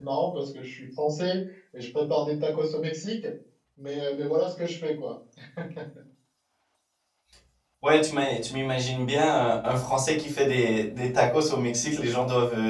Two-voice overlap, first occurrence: none

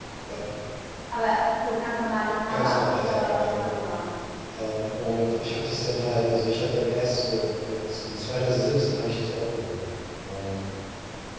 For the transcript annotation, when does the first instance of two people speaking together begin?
2 s

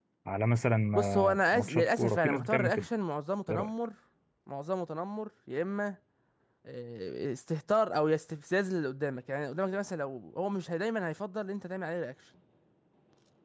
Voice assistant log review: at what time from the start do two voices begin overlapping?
1 s

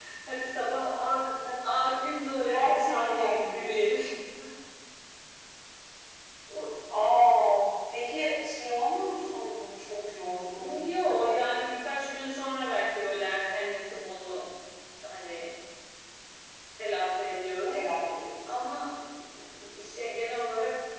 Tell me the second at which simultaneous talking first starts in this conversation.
2 s

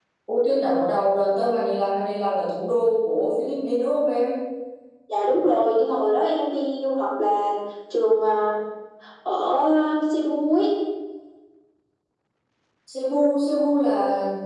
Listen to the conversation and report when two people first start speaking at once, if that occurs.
none

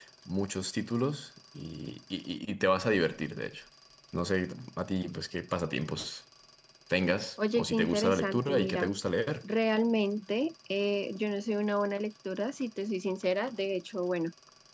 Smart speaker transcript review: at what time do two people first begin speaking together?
8 s

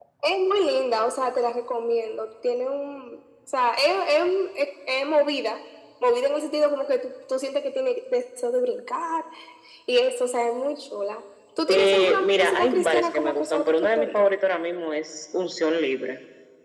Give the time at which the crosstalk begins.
12 s

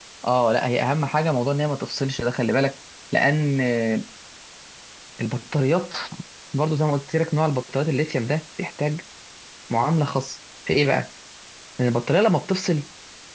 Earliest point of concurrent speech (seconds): none

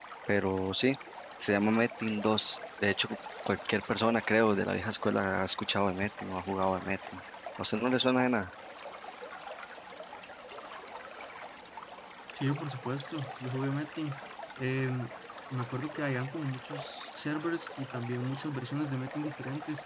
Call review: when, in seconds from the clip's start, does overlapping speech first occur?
none

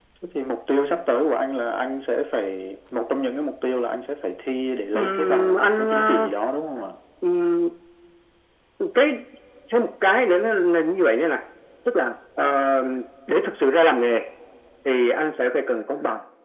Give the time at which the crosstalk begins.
5 s

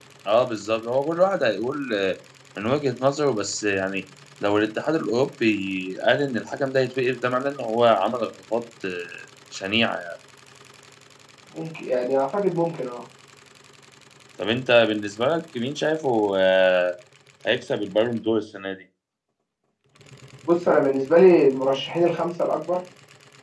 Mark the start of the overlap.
none

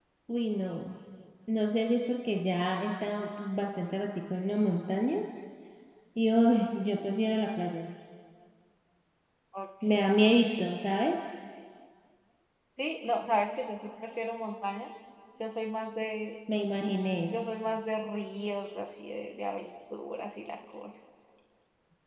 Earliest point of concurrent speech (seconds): none

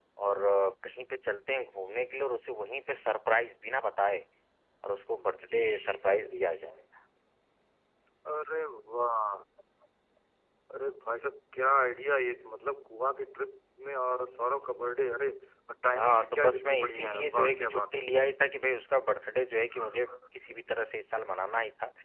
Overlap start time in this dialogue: 16 s

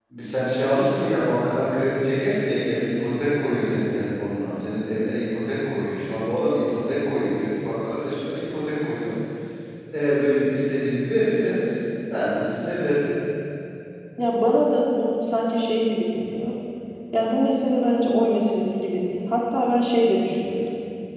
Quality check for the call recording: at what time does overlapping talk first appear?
none

